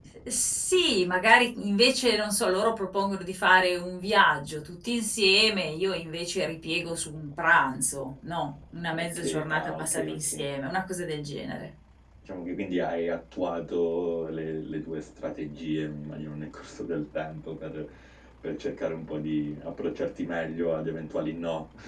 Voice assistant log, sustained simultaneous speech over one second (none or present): present